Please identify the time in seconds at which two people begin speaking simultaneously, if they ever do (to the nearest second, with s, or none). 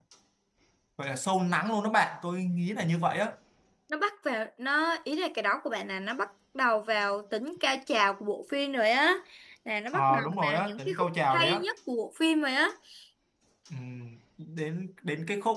10 s